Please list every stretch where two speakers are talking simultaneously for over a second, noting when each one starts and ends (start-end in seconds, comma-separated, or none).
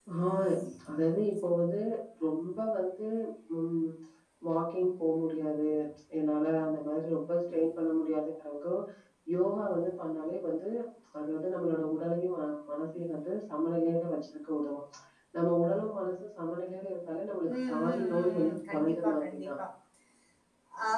17.7-19.5